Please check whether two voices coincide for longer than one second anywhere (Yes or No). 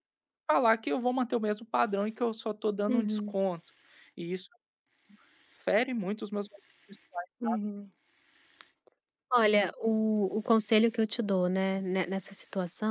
No